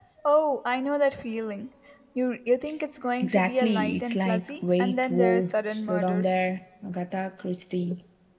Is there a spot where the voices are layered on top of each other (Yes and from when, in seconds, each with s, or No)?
Yes, from 3.2 s